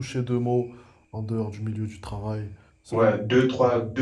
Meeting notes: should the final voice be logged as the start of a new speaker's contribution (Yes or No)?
Yes